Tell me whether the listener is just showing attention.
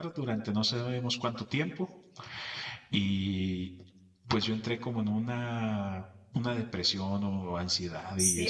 No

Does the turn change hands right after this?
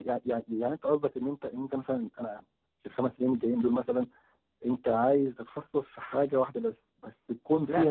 Yes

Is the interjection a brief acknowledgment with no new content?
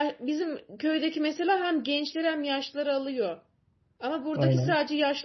Yes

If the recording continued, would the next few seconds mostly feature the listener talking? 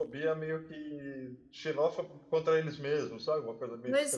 Yes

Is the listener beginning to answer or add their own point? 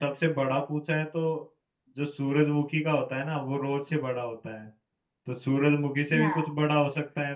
No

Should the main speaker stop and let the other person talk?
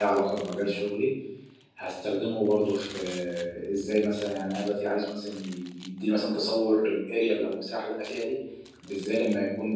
No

